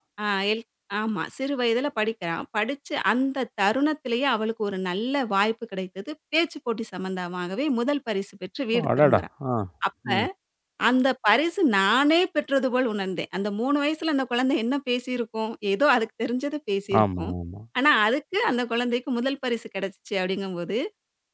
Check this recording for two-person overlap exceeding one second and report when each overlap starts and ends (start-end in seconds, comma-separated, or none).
none